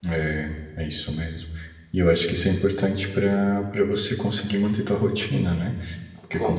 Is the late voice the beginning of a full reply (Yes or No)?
No